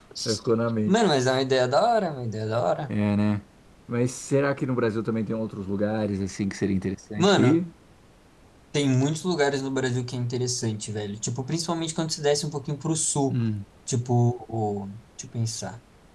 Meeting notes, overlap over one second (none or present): none